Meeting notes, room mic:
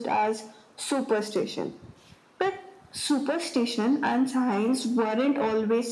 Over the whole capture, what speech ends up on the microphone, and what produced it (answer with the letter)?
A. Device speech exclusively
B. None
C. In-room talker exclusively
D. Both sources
A